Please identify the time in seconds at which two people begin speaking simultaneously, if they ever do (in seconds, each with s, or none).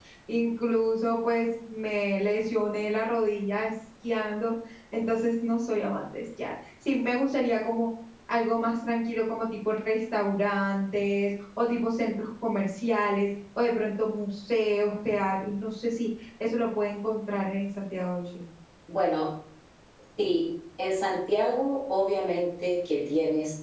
none